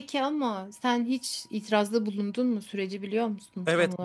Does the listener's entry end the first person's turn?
Yes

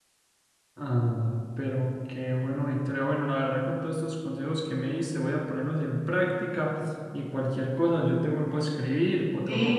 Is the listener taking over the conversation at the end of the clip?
Yes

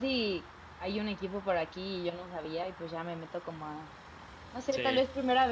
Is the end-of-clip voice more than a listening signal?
No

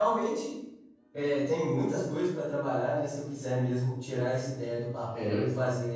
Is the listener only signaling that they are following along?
Yes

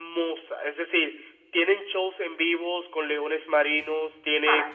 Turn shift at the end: No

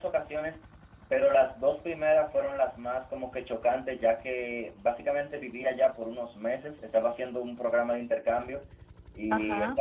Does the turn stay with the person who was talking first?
Yes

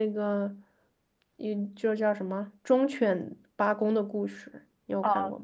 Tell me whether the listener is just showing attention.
No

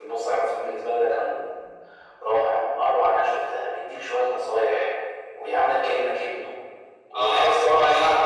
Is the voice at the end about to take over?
Yes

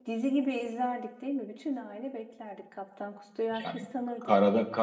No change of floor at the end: No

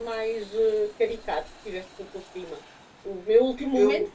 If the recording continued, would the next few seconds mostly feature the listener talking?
No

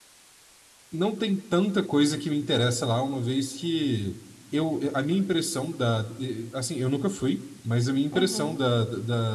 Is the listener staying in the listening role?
Yes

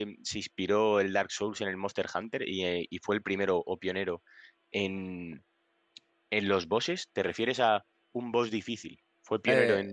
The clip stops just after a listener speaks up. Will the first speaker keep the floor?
No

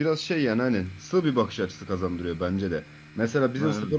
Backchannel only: Yes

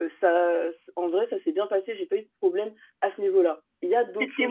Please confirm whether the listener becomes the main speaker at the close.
Yes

